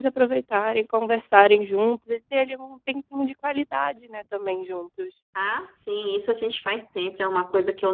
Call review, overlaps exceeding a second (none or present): none